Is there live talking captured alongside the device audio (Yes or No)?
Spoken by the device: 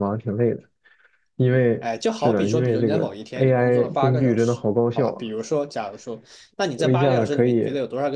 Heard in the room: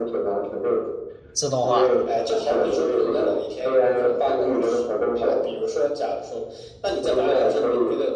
Yes